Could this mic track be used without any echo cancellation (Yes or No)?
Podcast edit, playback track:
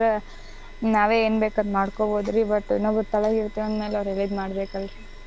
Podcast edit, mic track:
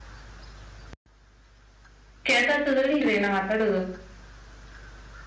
Yes